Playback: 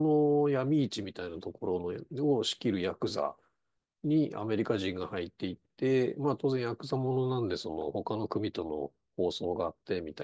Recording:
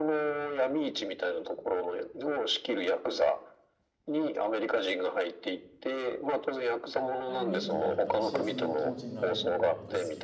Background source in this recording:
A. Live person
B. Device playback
A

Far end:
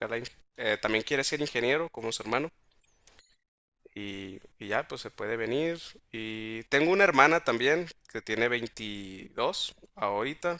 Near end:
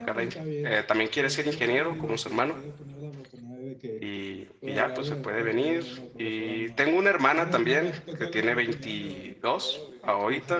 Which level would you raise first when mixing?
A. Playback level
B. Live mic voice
B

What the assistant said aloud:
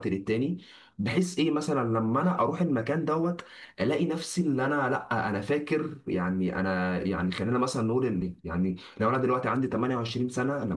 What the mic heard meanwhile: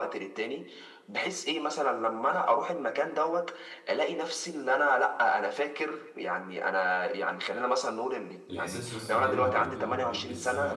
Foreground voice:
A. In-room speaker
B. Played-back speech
B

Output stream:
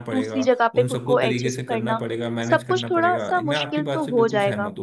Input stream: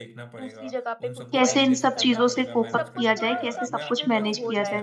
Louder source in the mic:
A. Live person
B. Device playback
A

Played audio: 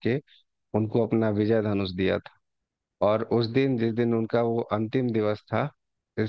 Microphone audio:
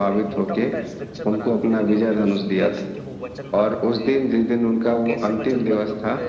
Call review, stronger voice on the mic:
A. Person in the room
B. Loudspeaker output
B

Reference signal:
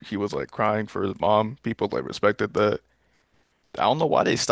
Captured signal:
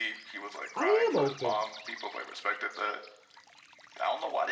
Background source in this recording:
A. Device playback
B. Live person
A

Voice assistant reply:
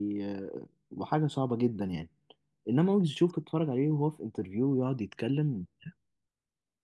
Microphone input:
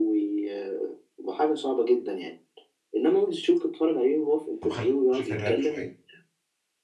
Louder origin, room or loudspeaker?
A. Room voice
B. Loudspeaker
B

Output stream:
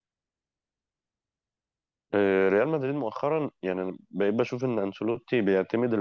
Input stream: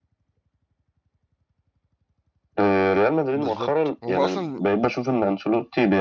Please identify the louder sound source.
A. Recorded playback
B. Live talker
A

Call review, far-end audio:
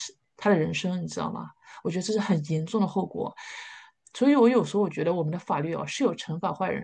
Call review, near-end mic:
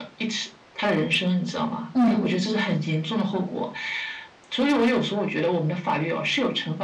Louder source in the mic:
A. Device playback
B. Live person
B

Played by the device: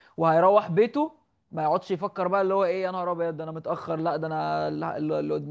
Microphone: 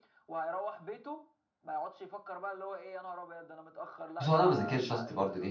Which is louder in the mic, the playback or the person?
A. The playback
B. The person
B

